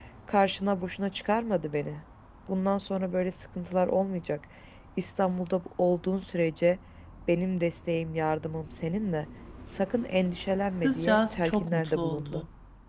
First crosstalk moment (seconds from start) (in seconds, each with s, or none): 10.8 s